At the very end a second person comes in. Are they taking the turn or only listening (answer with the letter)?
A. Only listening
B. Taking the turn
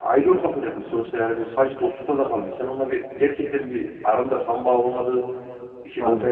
A